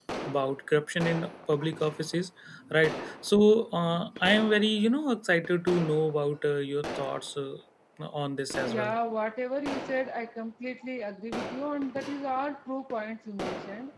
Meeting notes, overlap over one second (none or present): none